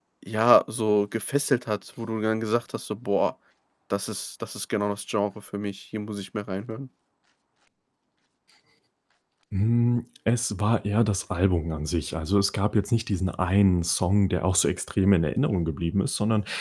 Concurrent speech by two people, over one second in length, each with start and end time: none

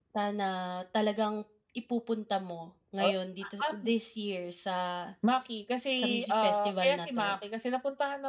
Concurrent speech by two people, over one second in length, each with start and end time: 6.0-7.4

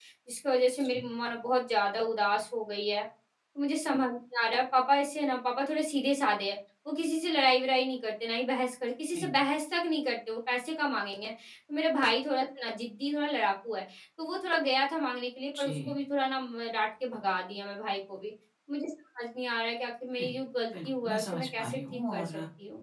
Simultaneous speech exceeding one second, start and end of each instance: 20.7-22.3

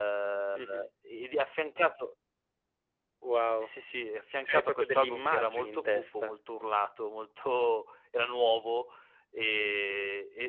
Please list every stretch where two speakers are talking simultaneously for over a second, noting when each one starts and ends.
4.4-6.4

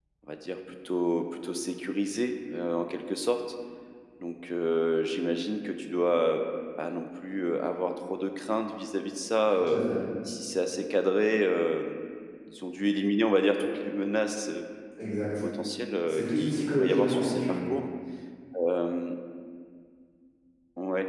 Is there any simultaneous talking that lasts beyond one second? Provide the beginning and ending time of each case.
16.1-17.4

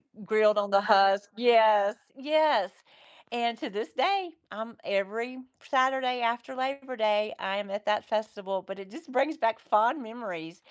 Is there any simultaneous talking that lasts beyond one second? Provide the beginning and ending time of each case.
none

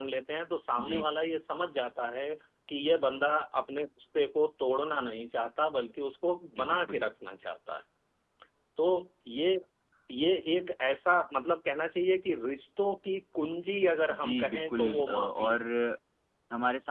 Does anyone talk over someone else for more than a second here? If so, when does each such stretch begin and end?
14.1-15.6

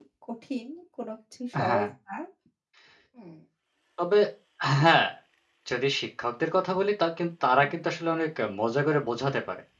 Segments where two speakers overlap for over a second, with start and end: none

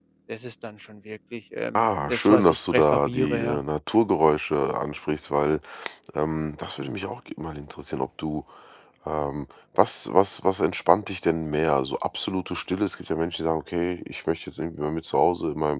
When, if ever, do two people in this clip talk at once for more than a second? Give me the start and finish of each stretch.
1.8-3.6

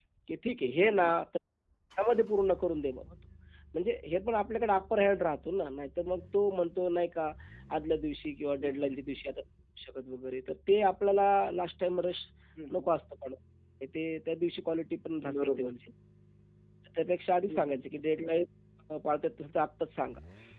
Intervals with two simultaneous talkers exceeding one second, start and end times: none

